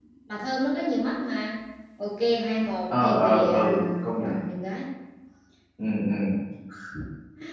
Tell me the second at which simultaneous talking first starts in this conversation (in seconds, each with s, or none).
2.9 s